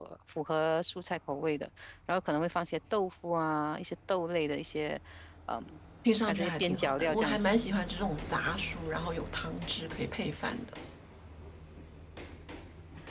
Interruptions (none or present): present